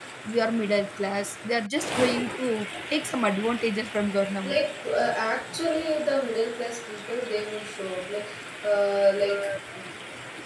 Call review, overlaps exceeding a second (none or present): none